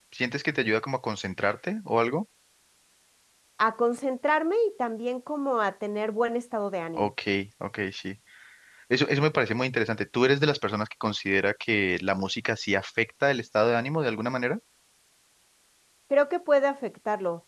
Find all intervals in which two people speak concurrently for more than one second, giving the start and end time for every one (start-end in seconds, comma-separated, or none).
none